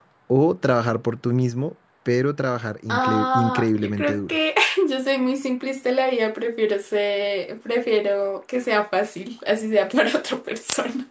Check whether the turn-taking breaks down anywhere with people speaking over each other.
Yes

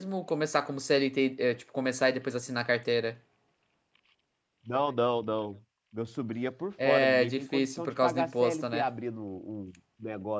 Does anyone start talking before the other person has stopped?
Yes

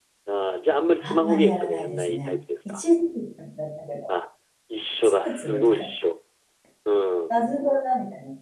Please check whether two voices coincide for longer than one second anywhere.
Yes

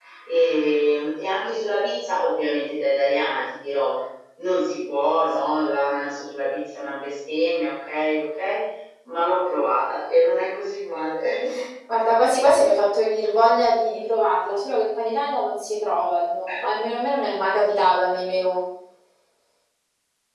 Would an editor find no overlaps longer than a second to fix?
Yes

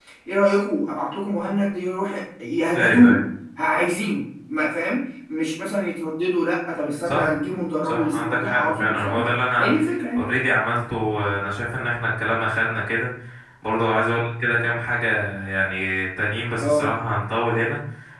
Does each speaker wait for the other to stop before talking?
No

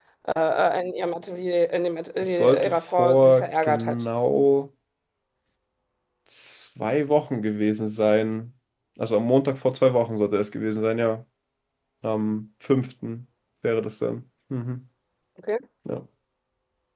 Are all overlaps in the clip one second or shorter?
No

